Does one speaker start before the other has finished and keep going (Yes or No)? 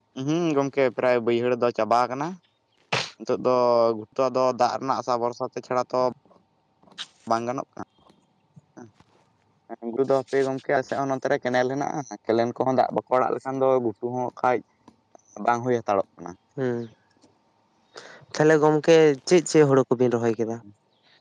No